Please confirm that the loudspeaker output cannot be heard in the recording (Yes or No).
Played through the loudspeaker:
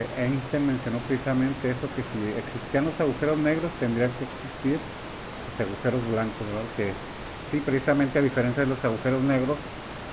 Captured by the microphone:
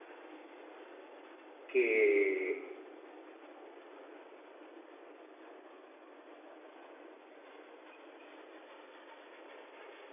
Yes